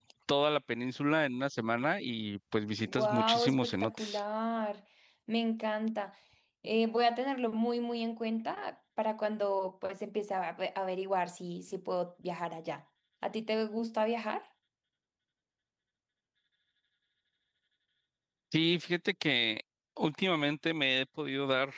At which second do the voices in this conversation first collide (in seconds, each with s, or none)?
2.8 s